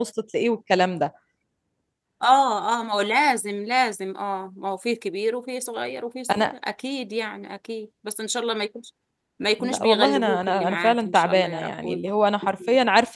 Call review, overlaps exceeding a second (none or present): present